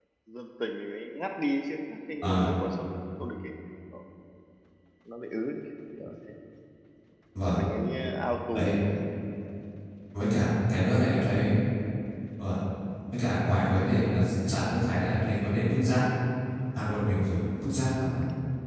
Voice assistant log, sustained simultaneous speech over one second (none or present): none